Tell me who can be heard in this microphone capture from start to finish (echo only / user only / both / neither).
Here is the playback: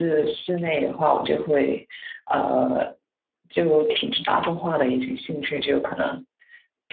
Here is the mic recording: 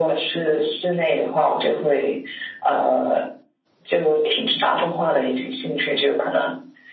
echo only